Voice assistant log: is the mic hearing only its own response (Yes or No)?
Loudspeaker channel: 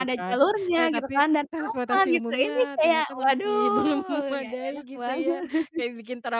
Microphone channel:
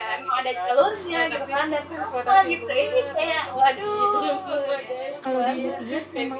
No